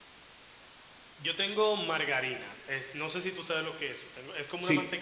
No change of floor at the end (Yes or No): Yes